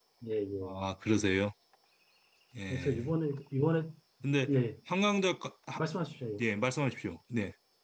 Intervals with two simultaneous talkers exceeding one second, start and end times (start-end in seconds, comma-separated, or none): none